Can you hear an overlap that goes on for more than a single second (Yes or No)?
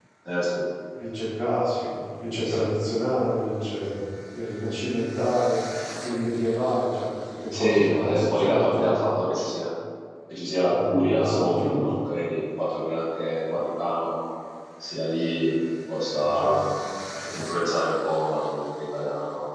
Yes